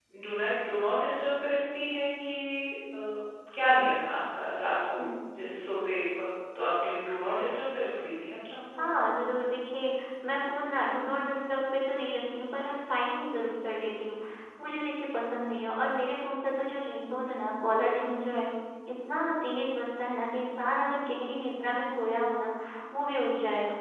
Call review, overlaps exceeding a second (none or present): none